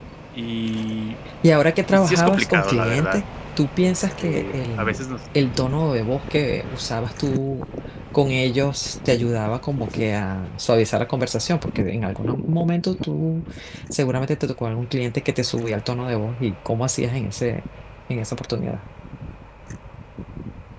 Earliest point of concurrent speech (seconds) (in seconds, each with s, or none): 1.9 s